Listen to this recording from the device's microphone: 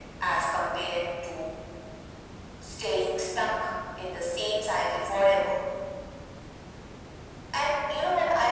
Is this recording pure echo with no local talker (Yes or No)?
Yes